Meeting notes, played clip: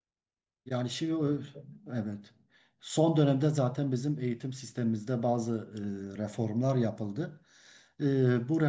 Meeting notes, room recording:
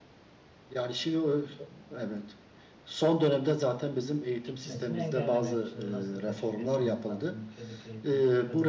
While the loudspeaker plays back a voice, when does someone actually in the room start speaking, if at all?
4.4 s

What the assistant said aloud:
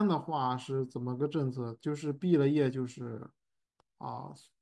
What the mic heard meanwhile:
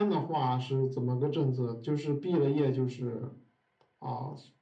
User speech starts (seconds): none

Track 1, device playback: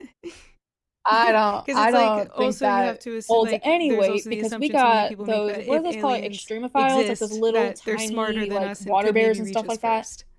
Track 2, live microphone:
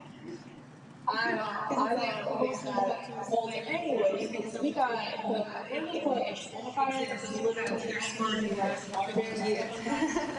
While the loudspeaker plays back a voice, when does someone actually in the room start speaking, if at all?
9.3 s

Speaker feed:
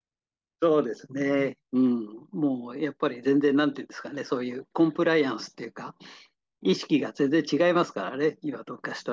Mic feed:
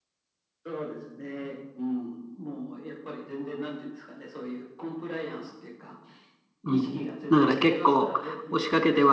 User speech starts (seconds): 6.6 s

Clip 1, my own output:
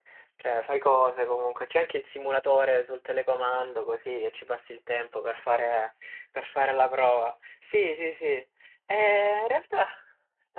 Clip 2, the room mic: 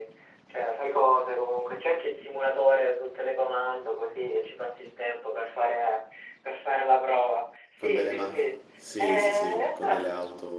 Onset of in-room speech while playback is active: 7.8 s

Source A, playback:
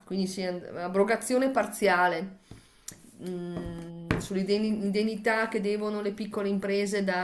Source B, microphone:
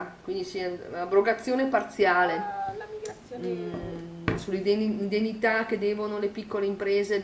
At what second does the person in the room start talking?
2.1 s

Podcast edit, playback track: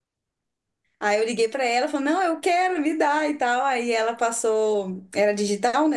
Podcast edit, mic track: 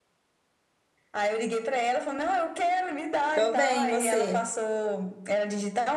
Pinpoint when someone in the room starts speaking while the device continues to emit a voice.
3.3 s

